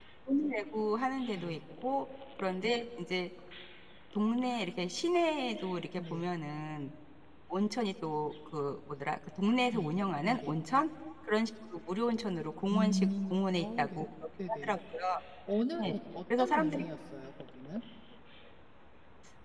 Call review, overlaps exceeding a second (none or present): present